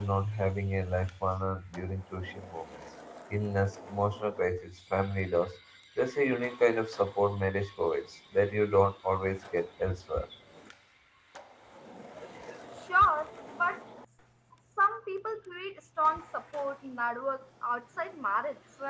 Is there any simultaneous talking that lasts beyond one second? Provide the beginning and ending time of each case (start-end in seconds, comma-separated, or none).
none